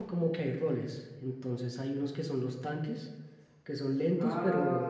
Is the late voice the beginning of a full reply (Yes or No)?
No